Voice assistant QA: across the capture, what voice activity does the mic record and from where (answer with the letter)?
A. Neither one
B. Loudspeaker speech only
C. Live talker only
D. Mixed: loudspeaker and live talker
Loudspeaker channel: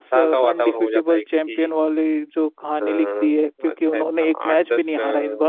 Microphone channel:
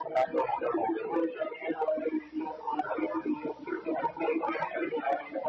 B